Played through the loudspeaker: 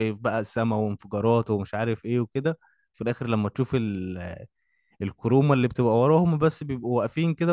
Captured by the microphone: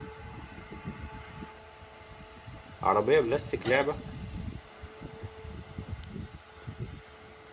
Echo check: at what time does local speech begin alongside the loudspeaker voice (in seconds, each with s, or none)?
2.8 s